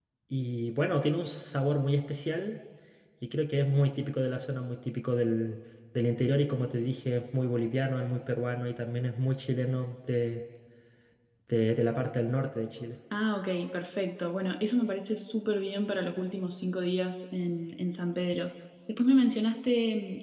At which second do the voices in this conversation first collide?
none

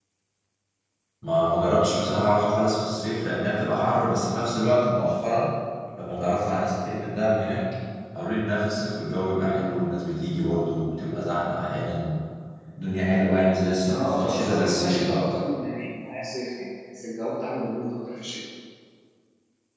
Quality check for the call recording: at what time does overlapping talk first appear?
14 s

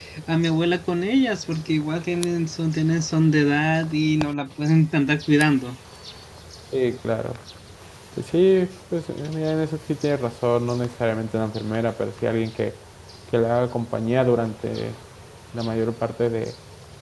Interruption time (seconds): none

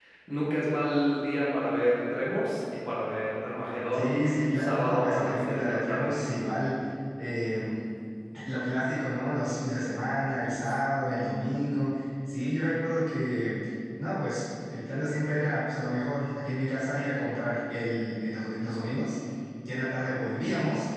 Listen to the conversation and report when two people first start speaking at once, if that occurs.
4 s

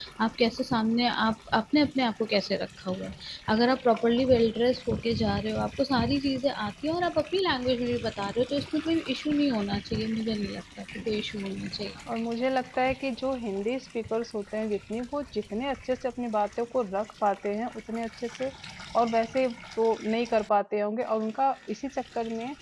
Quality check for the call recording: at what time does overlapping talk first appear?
none

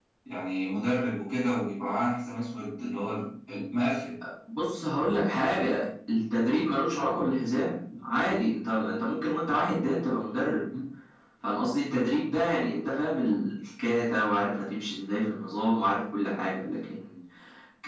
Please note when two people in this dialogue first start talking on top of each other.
none

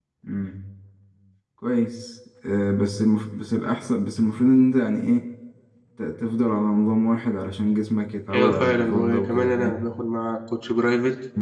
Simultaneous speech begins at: 8 s

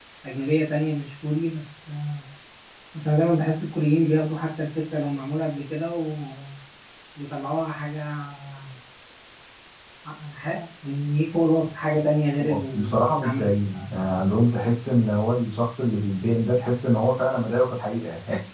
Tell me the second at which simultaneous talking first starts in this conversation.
12 s

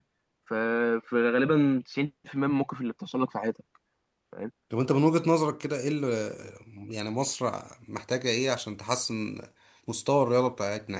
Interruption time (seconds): none

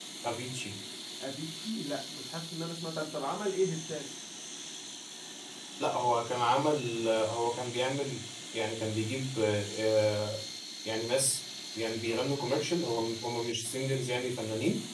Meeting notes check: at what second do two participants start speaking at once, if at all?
none

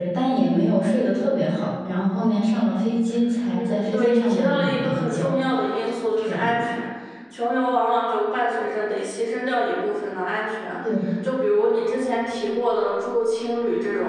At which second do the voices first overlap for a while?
4 s

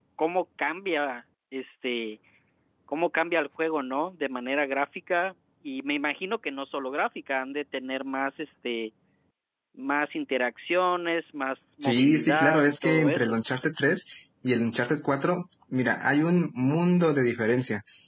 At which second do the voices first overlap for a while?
12 s

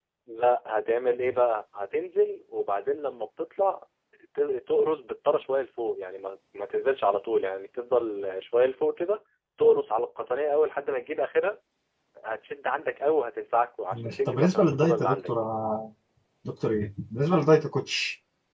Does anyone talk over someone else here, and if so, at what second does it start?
14 s

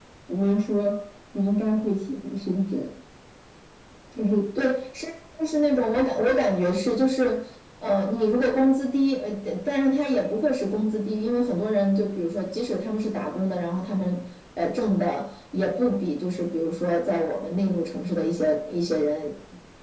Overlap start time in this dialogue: none

